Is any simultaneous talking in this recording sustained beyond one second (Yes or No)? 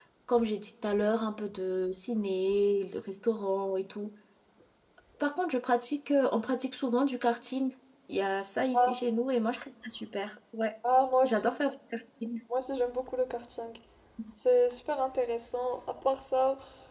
No